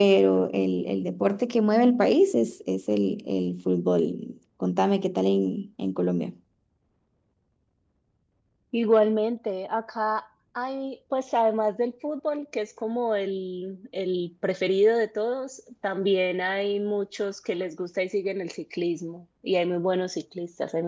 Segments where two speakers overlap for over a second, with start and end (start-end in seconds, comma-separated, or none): none